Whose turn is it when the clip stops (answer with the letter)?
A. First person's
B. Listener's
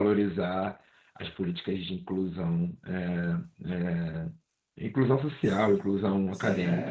B